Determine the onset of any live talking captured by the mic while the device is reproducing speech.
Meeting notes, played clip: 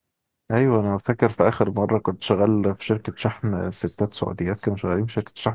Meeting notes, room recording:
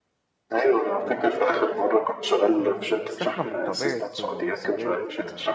2.6 s

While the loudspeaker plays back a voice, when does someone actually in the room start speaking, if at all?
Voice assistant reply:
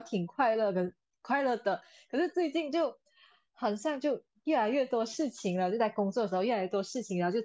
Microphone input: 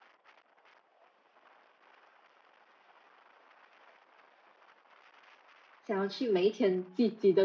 5.8 s

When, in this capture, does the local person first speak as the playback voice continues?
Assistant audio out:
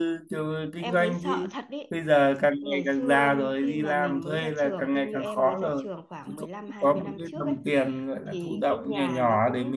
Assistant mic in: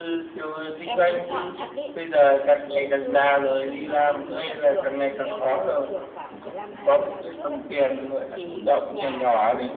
none

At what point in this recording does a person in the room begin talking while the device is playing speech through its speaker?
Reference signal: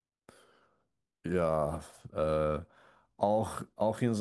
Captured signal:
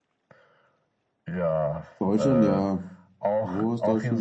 2.0 s

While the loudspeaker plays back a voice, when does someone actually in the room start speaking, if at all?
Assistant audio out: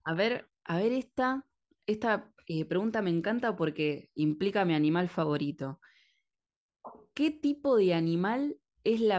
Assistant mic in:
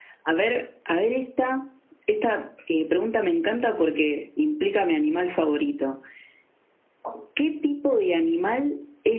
none

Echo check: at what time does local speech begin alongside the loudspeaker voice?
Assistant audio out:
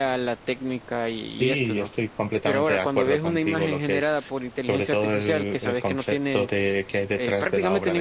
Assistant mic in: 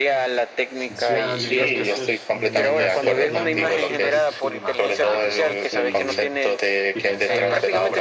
0.9 s

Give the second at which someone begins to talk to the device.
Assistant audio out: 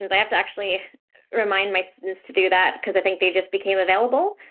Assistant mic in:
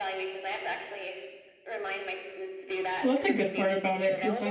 3.0 s

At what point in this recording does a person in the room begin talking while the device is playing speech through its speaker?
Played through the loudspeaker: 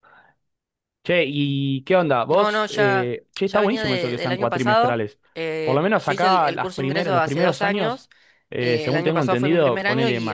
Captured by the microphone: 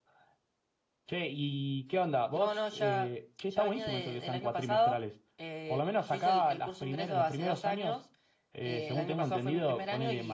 none

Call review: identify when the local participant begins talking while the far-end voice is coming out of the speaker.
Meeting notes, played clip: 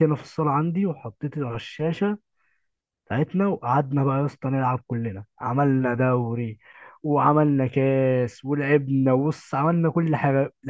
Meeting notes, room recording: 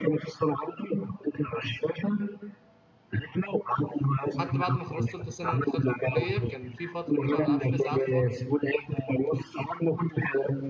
4.3 s

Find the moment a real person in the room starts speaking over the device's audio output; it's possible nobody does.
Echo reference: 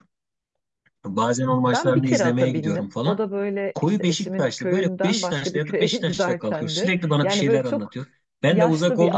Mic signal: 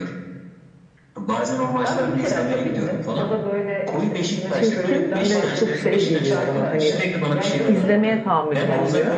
4.5 s

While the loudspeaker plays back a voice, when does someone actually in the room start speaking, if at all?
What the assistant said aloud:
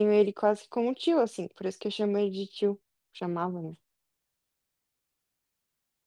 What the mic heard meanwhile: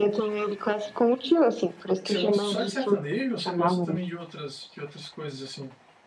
2.0 s

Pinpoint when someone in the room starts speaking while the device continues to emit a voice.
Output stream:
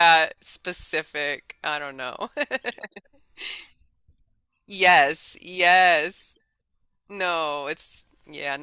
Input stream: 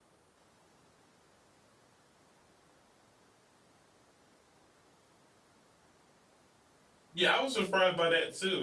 7.1 s

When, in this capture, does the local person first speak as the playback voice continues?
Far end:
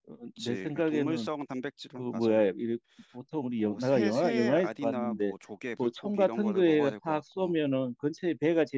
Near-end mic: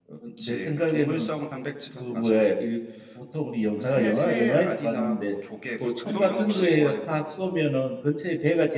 6.0 s

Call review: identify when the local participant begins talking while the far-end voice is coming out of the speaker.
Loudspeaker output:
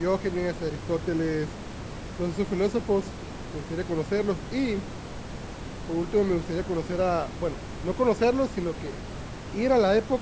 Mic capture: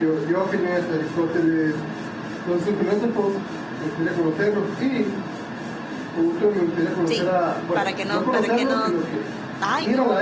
7.0 s

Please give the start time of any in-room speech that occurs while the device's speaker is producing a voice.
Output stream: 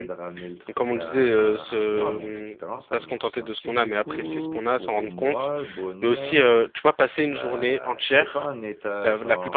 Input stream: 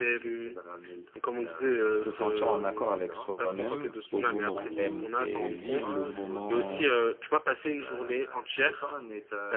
1.9 s

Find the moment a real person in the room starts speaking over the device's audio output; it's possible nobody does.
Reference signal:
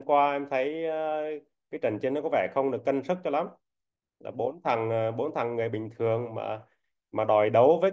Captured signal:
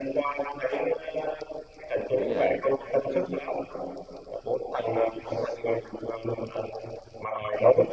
2.2 s

